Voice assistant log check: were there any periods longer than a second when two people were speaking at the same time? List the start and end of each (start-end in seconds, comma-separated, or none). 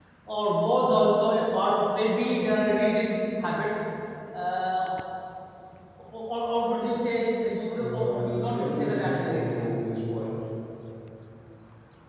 7.8-9.8